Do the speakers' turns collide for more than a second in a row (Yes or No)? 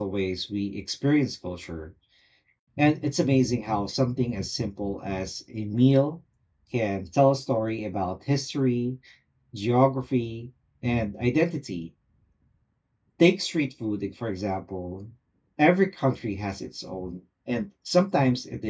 No